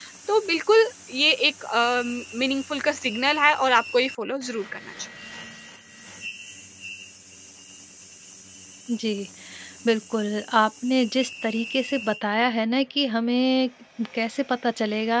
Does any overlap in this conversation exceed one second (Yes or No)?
No